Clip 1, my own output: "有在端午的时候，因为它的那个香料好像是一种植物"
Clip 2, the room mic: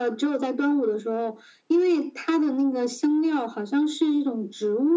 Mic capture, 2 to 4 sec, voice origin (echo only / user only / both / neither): echo only